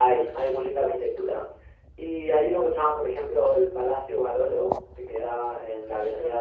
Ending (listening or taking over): listening